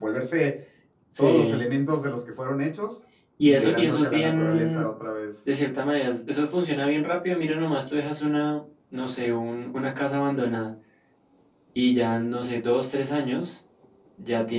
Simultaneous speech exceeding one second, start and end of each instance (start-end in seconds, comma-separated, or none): 3.4-4.8